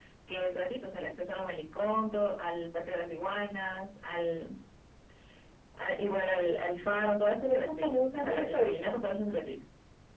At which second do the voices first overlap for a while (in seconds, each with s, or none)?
7.5 s